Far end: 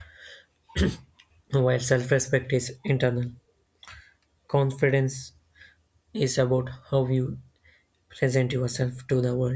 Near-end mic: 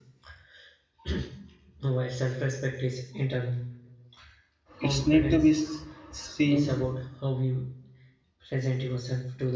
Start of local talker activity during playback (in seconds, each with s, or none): 4.8 s